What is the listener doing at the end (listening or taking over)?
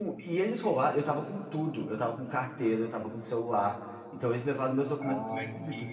taking over